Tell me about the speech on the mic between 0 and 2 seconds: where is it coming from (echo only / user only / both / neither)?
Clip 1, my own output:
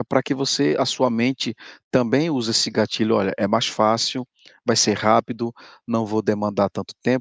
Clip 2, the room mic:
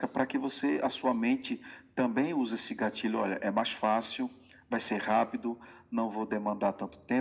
echo only